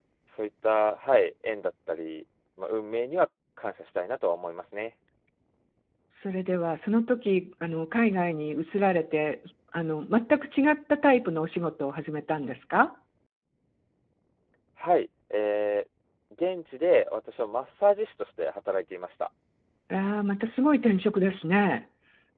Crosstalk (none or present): none